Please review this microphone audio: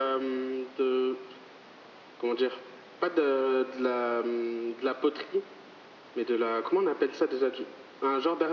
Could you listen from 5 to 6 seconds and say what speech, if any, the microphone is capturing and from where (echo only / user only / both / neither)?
echo only